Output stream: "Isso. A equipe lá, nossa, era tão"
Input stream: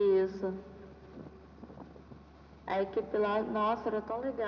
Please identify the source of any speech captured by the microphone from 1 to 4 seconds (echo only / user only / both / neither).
echo only